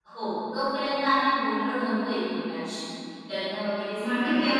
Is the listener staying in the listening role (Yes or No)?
No